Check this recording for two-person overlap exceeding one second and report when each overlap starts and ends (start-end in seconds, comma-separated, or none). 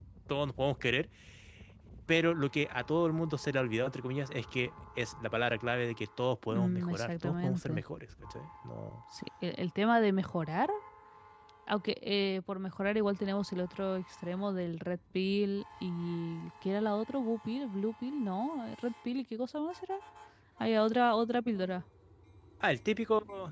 6.5-7.8